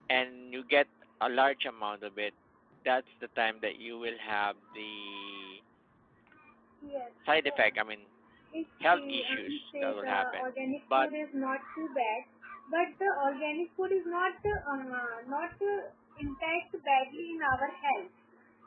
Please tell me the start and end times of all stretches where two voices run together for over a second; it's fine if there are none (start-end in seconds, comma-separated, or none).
8.9-10.4